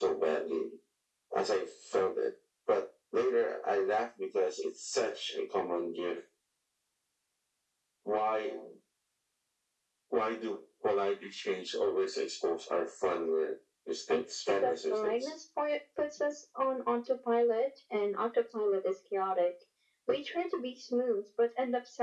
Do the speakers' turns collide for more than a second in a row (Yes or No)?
Yes